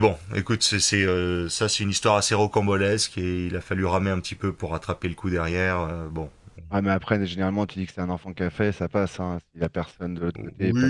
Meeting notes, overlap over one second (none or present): none